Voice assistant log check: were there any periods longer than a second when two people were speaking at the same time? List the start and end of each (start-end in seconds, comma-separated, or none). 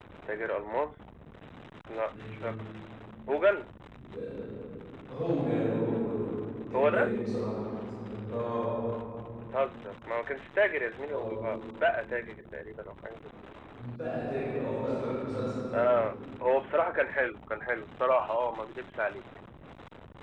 none